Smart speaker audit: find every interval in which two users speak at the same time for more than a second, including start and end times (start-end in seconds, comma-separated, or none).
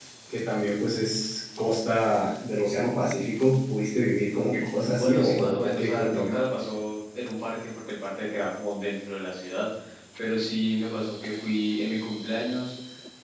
4.5-6.3